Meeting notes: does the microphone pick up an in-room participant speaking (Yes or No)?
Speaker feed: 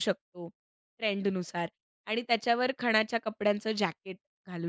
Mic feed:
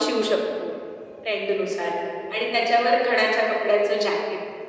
No